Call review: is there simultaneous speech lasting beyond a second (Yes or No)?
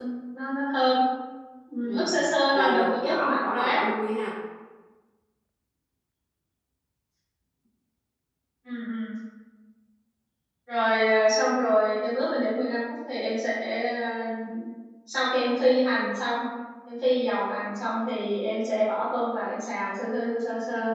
Yes